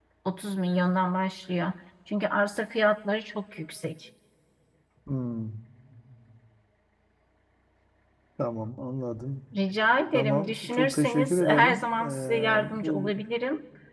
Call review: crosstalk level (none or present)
present